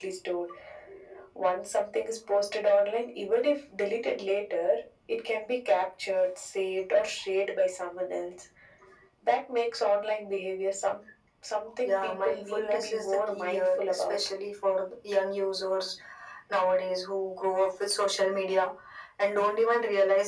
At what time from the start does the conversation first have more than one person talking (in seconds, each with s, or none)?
11.8 s